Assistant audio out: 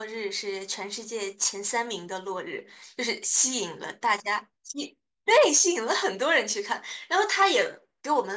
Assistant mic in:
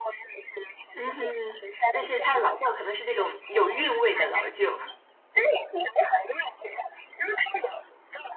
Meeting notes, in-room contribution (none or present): present